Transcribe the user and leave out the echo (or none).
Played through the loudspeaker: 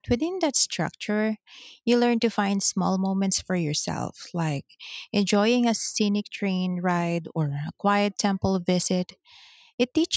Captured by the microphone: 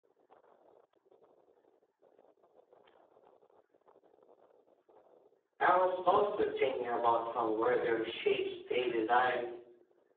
I was also thinking about how weather shapes daily life